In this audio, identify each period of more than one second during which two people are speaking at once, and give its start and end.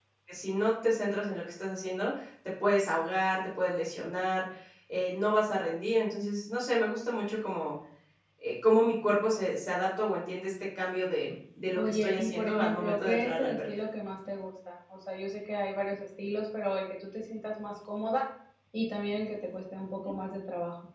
11.8-13.7

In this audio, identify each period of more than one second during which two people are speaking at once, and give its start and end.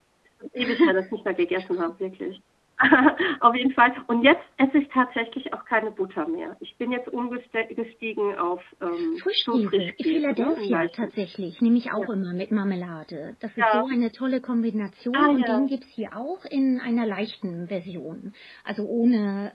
9.2-11.1

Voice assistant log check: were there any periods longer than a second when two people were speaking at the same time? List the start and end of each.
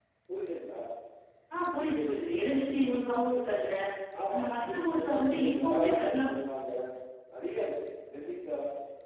4.3-6.2

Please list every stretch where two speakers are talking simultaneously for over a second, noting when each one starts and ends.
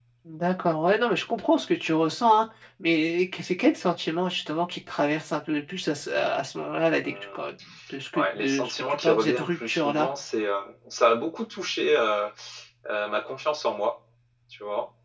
8.1-10.1

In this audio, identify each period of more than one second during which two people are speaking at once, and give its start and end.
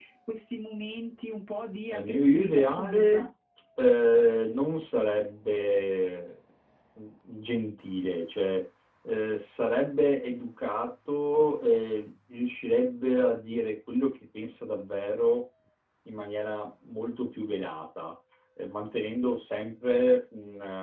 1.9-3.2

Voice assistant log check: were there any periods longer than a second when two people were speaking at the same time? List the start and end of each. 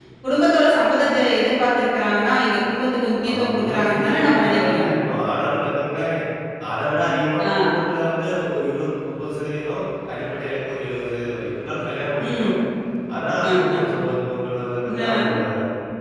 3.3-4.9

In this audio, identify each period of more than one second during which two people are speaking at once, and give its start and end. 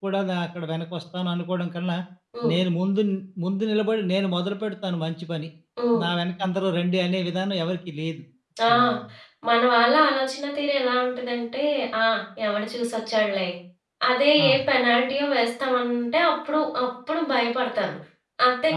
none

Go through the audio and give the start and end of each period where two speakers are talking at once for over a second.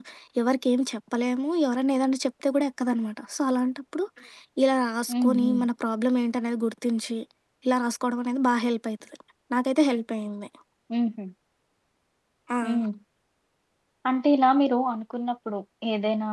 none

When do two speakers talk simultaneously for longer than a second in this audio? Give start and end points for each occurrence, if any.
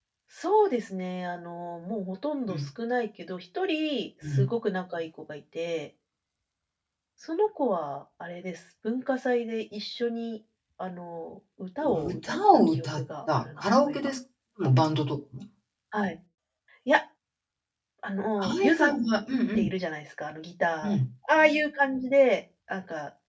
11.8-14.0

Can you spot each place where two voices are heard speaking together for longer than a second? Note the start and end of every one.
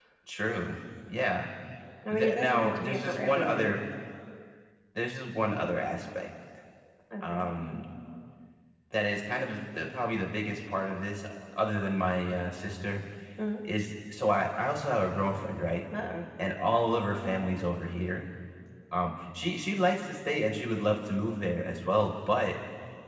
2.1-3.8

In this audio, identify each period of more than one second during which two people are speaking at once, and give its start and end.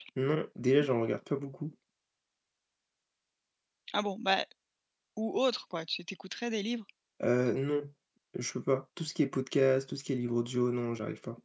none

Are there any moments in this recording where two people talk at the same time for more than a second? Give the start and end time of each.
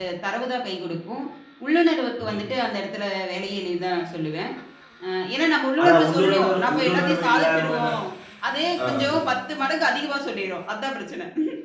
5.8-8.0

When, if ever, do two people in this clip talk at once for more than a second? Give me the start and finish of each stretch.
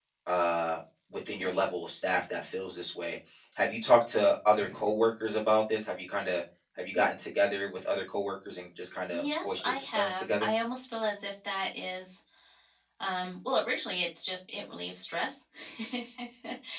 9.1-10.5

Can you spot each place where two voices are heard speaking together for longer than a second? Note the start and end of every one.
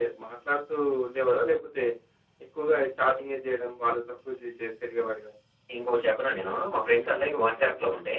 none

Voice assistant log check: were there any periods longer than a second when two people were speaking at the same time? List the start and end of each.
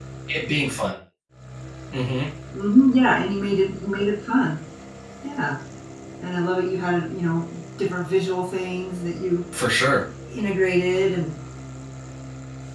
none

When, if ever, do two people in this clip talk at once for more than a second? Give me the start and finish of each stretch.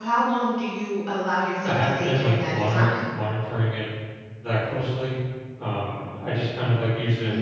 1.6-2.9

